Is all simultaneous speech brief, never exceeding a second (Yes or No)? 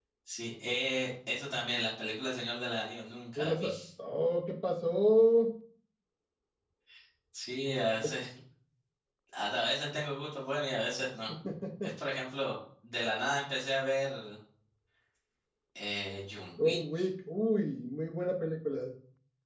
Yes